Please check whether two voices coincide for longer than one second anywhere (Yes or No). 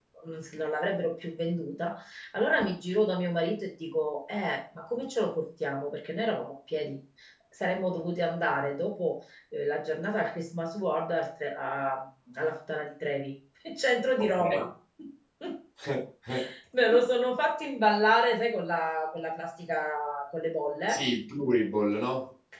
No